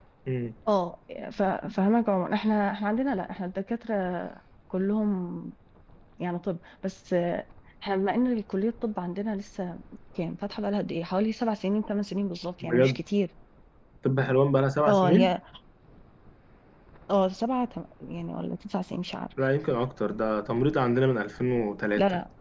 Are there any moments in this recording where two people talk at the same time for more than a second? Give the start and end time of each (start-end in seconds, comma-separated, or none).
none